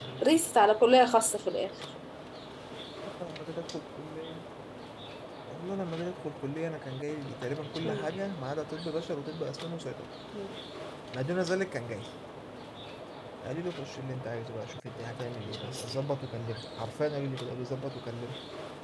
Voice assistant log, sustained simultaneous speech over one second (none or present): none